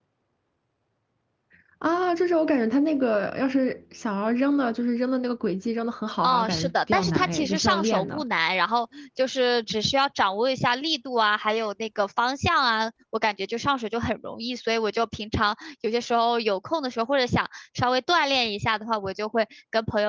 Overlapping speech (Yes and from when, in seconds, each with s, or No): Yes, from 6.2 s